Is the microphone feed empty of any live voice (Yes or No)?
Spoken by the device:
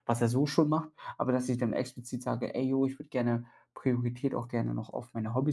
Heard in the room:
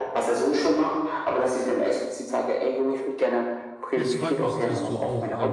No